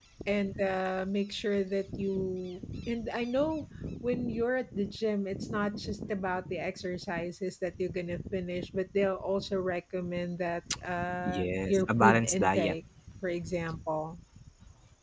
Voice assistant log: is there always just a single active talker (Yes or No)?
No